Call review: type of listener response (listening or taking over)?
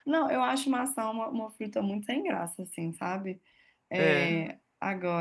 listening